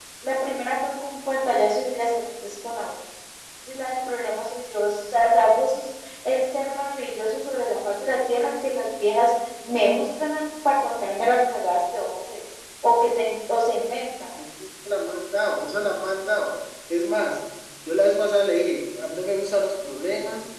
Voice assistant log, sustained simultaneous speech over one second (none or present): none